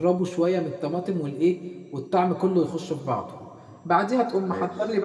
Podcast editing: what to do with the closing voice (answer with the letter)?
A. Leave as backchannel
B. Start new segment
A